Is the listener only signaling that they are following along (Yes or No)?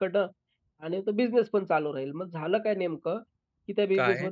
Yes